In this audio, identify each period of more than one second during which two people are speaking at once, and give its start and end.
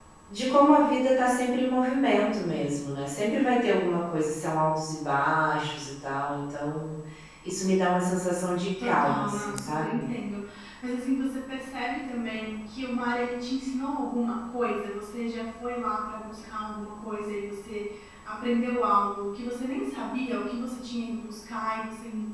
8.8-10.1

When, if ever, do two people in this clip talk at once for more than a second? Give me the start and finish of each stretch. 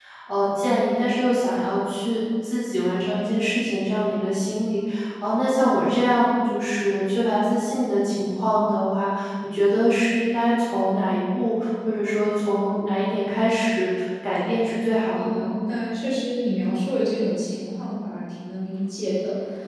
none

